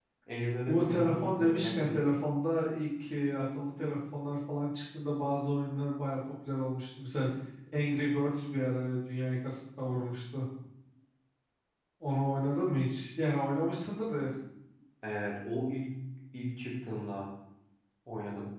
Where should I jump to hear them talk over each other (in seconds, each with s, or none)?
0.7 s